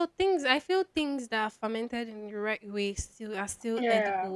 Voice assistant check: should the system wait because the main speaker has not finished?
Yes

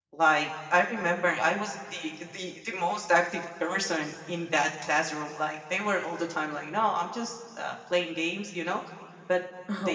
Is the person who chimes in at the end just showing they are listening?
Yes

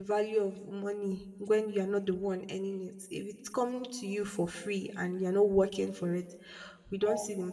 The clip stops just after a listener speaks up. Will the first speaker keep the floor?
Yes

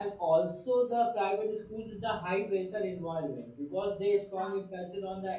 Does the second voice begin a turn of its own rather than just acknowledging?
No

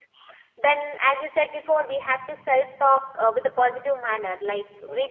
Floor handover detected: No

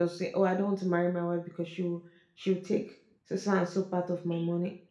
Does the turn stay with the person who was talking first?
No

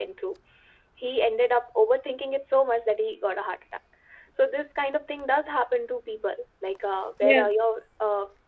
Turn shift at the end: No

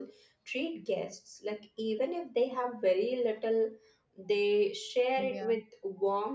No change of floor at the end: Yes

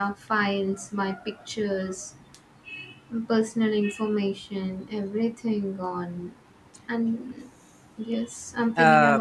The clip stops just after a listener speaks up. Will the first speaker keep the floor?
No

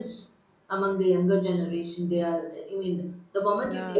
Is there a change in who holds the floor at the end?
Yes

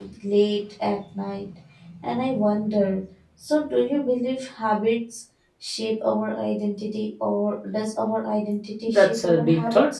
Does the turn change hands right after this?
Yes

